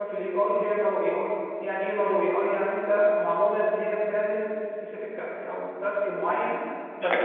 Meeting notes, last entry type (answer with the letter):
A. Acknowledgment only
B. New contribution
B